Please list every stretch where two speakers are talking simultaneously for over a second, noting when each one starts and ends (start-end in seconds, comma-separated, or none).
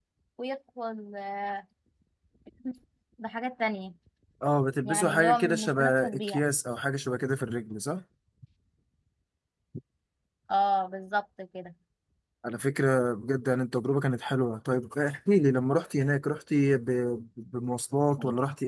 4.8-6.4